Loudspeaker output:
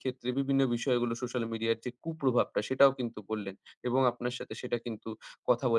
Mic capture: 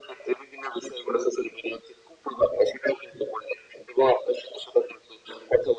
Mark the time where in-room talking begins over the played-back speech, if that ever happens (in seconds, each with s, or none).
none